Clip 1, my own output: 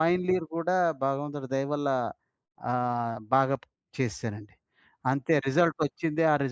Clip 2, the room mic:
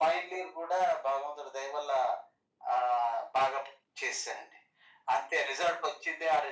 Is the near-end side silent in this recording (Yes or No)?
Yes